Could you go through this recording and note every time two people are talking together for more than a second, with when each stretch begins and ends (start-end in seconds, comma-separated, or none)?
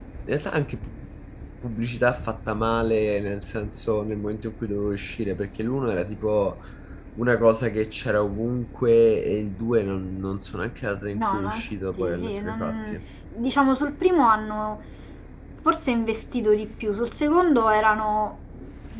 11.1-13.0